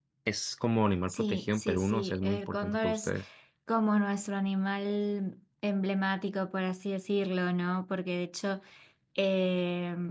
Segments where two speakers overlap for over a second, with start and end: 1.1-3.1

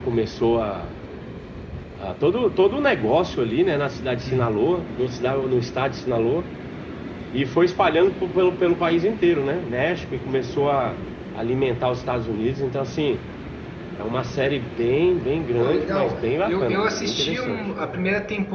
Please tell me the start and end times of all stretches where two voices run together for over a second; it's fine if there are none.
15.6-17.6

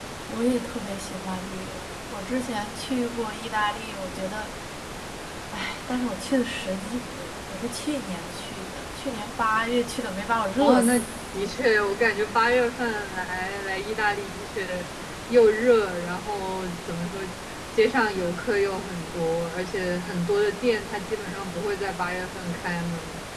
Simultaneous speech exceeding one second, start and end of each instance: none

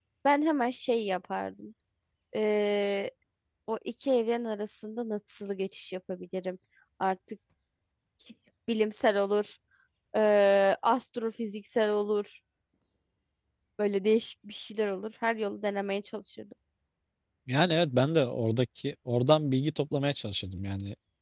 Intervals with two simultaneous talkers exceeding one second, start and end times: none

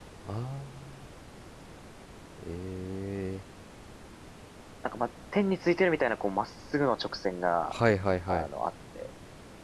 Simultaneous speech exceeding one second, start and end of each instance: none

